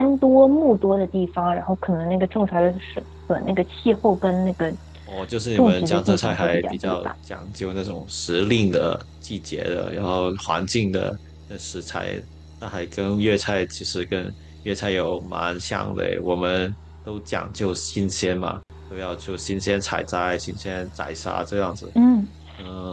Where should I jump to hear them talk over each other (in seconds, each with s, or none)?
5.5 s